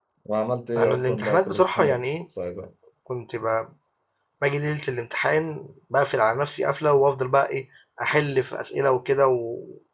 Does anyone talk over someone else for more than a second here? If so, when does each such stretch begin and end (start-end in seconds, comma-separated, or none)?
0.8-2.0